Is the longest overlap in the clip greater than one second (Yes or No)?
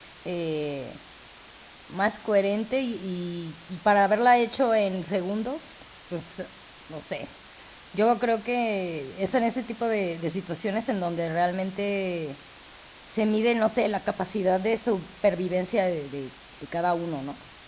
No